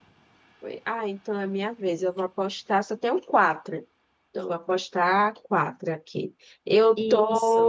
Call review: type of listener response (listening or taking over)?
listening